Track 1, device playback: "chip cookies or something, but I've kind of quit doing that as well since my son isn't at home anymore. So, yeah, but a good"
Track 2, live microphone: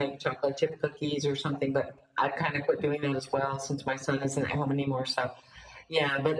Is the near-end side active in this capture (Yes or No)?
No